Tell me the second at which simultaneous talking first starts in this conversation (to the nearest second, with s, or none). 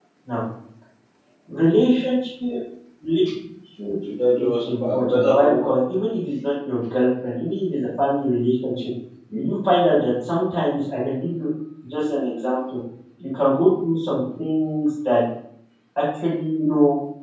4 s